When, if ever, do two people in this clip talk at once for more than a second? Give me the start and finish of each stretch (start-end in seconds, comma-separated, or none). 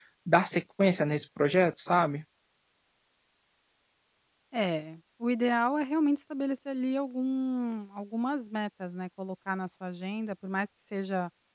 none